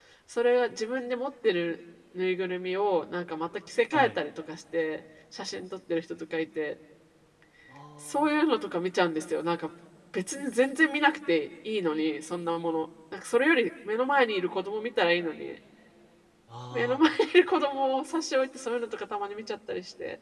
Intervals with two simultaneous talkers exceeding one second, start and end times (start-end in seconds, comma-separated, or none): none